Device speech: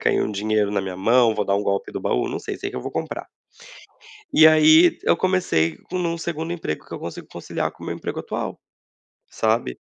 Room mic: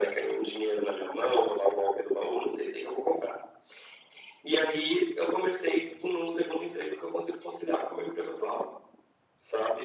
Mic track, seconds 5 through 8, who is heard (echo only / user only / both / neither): echo only